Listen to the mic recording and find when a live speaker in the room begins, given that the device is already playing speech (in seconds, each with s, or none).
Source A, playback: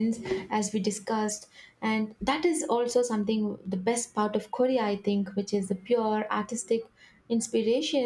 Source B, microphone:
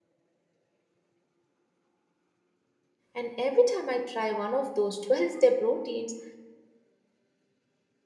3.1 s